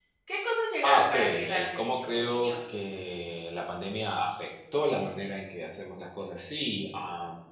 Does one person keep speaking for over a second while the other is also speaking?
Yes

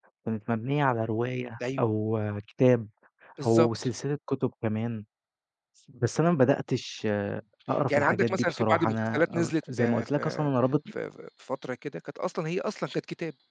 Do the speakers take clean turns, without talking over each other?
No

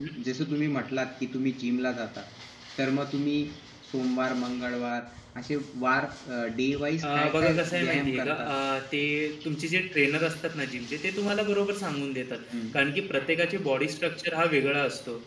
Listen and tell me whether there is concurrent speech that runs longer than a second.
Yes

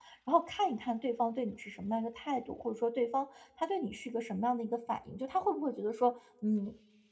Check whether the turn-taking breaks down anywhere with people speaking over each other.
No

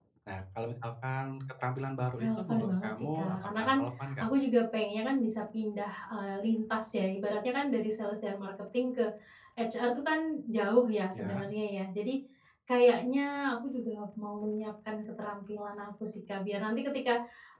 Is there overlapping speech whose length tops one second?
Yes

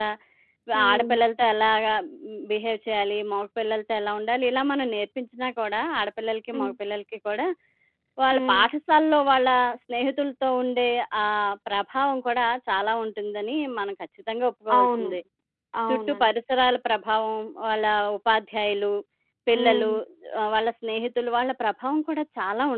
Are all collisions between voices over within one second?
Yes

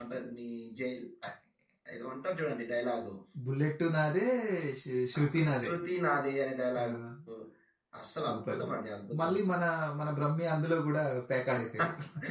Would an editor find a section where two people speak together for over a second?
No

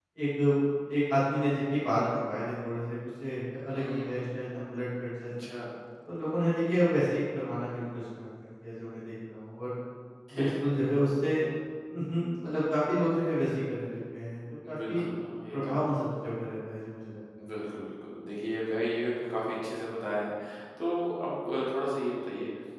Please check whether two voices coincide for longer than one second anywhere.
No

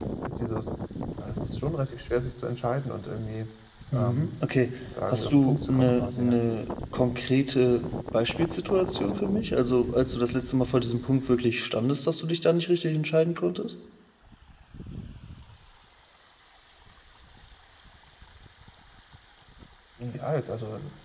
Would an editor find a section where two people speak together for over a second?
Yes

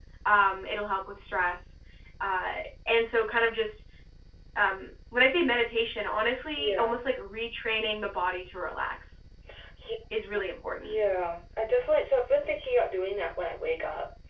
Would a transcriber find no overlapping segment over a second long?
Yes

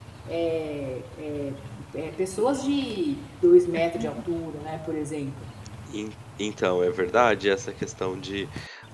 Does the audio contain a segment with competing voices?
No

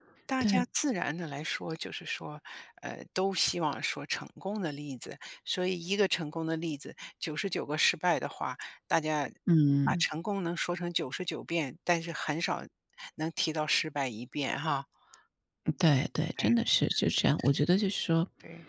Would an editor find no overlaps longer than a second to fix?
Yes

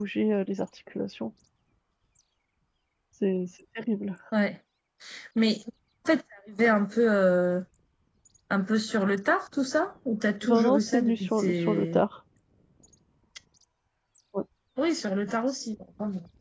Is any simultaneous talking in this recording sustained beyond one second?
Yes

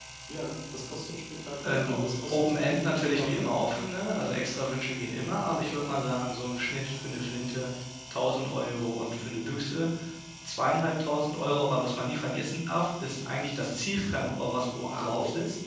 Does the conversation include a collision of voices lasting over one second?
Yes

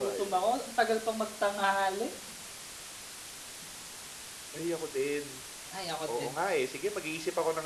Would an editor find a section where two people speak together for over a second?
No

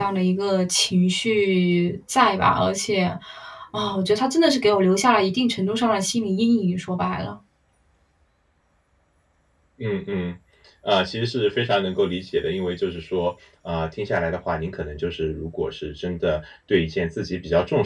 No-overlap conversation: Yes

